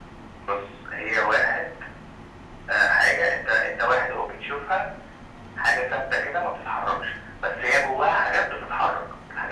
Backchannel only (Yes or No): Yes